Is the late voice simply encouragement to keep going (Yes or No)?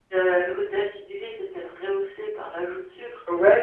No